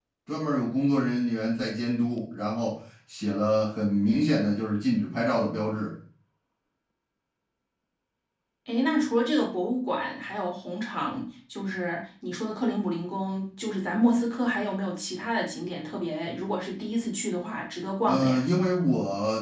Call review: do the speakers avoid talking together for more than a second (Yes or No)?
Yes